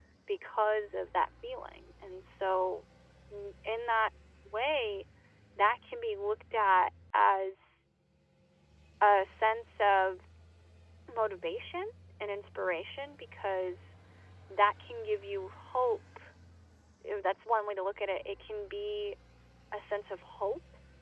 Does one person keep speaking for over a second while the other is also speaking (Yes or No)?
No